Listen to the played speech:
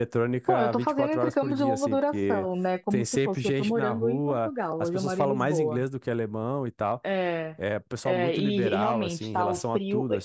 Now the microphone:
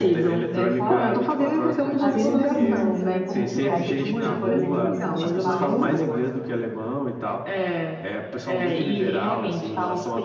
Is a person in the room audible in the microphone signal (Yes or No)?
Yes